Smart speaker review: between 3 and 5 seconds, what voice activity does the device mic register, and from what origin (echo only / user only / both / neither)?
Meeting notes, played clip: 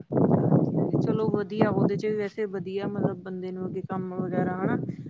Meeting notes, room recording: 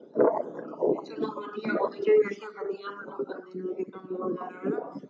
echo only